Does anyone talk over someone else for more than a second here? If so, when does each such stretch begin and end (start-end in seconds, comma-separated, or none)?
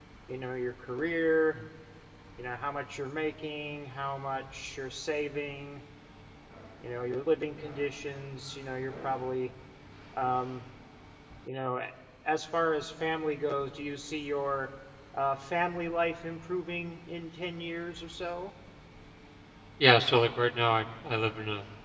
none